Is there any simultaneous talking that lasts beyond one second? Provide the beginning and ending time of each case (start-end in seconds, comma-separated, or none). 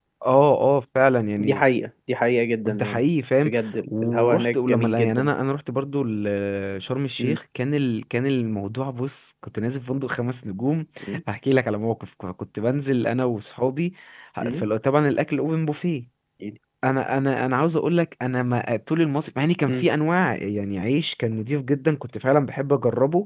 3.9-5.3